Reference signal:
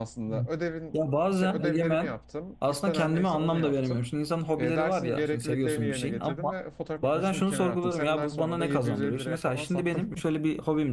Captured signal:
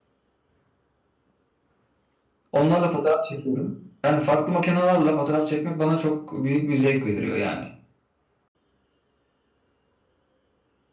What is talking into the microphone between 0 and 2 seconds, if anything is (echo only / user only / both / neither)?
neither